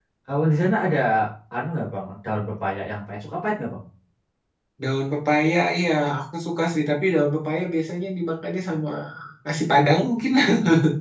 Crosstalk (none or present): none